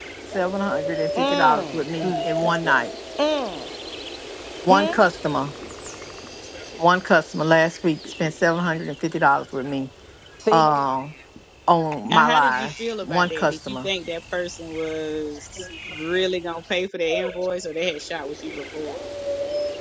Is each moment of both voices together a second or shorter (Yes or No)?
No